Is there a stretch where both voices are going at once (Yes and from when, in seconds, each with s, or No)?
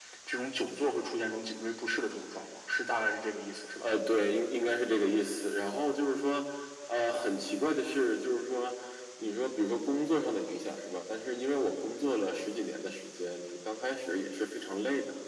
No